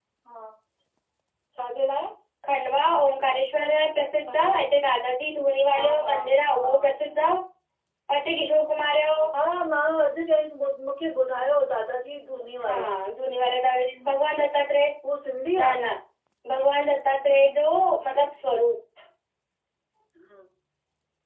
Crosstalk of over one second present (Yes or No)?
No